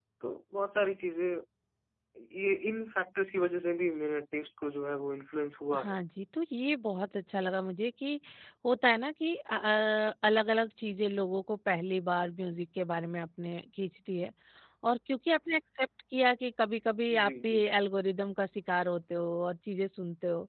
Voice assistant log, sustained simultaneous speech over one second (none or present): none